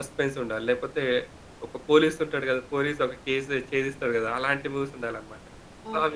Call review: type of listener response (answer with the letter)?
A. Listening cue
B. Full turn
B